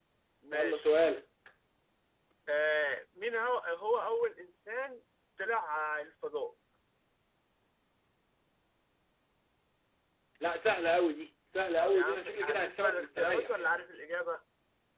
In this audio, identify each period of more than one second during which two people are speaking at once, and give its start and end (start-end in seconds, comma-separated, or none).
11.8-13.8